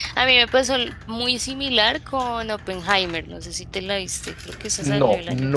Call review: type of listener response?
taking over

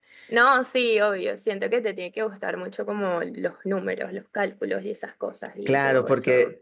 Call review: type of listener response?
taking over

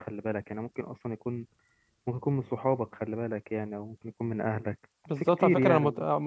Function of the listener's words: taking over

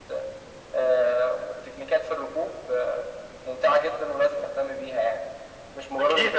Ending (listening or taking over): taking over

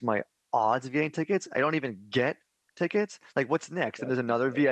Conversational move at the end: listening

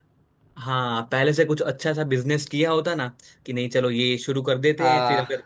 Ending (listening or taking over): listening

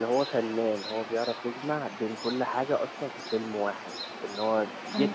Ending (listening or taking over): taking over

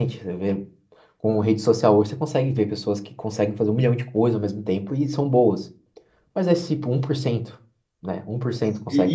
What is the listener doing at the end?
taking over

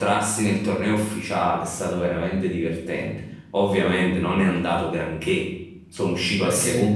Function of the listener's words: listening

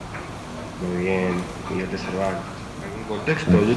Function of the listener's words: listening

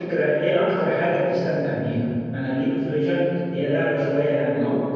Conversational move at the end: listening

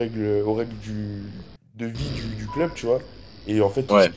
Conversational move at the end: listening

